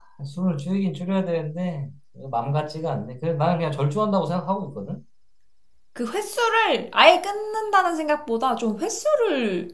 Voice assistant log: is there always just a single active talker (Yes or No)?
Yes